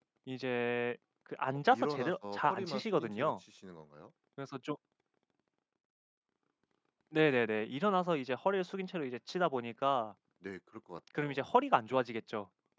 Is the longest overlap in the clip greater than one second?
Yes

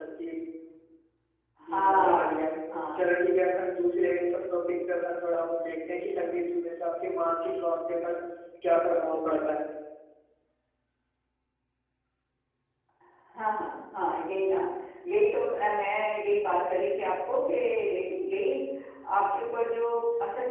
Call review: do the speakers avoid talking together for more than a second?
No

